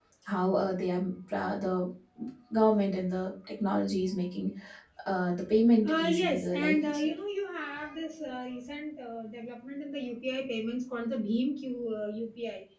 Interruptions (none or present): present